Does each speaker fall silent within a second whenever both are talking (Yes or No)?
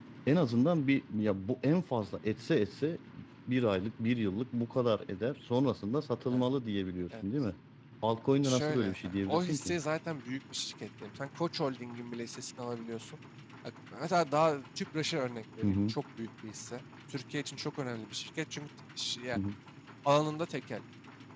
No